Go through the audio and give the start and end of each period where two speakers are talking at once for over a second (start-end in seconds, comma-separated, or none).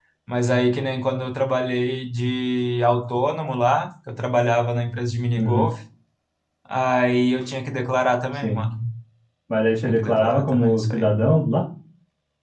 9.8-11.1